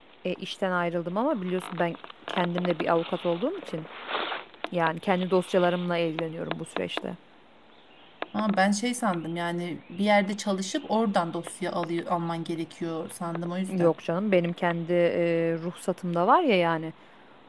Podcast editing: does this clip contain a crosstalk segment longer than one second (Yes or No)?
No